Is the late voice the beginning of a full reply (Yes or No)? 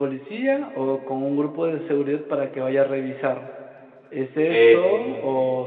No